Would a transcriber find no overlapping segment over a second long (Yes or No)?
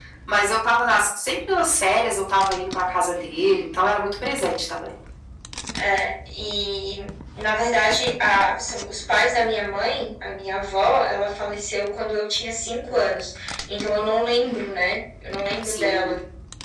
Yes